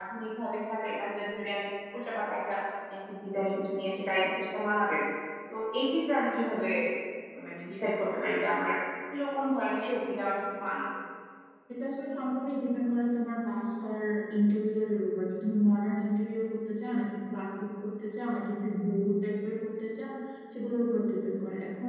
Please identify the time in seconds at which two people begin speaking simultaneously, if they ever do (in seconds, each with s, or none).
none